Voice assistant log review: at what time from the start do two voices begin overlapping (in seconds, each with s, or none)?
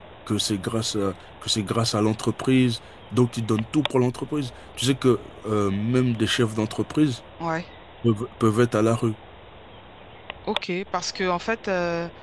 none